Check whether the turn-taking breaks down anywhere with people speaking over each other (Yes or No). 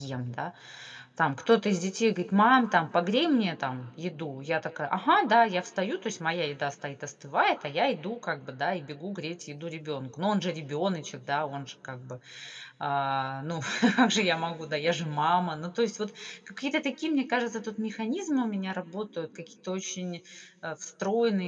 No